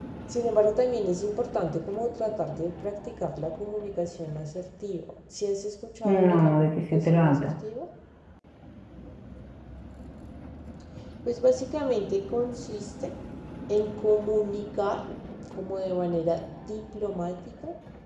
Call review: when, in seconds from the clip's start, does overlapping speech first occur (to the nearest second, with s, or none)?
6 s